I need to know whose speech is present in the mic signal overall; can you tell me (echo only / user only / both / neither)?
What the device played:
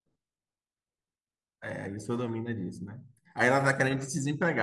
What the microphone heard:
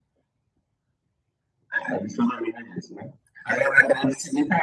echo only